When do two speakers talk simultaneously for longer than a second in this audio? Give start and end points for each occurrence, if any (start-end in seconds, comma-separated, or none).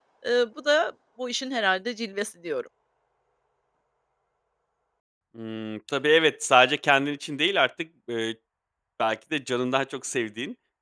none